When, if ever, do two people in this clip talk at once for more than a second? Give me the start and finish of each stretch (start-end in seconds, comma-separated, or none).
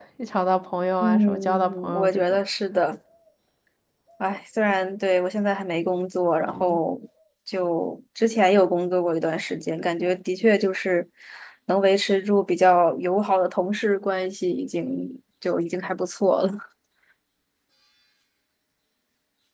1.0-2.4